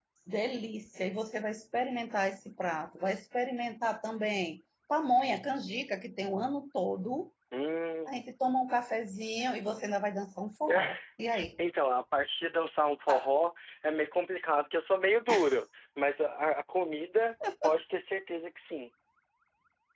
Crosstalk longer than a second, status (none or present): none